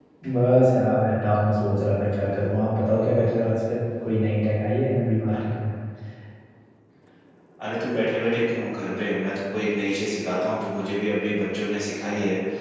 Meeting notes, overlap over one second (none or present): none